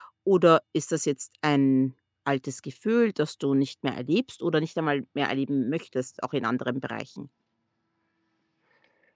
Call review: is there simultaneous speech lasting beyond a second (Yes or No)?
No